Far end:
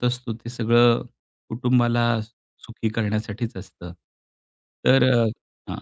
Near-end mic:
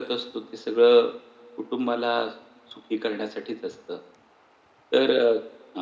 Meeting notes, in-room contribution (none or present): none